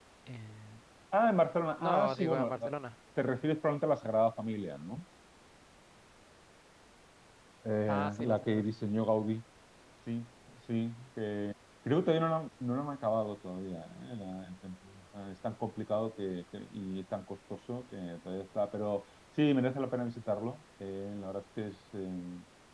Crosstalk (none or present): present